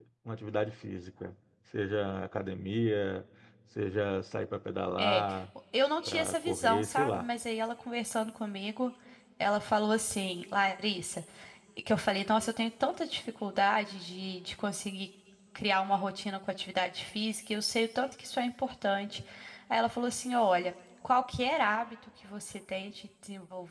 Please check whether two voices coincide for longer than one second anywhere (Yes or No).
Yes